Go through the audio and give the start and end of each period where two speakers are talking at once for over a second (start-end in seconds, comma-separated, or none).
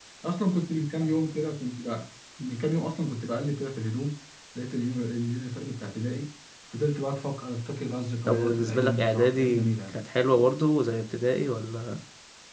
8.3-9.9